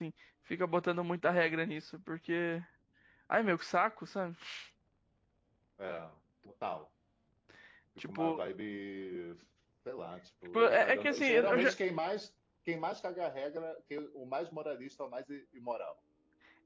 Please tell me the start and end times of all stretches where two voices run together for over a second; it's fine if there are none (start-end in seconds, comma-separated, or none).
10.5-11.7